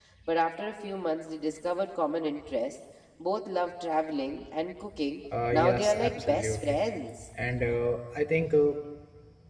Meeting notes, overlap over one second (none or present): present